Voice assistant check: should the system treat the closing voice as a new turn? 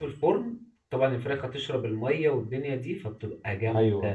No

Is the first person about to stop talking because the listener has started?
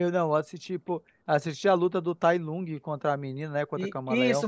Yes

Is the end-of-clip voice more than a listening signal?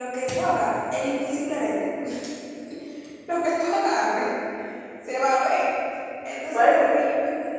No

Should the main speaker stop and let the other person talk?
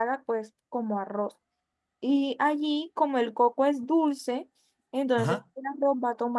No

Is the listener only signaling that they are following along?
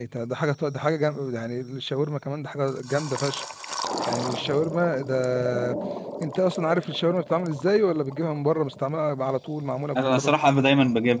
No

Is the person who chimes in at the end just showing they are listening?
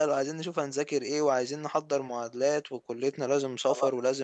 Yes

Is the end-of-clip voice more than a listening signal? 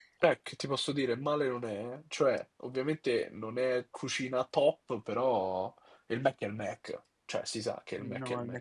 Yes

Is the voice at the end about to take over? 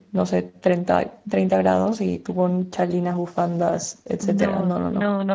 Yes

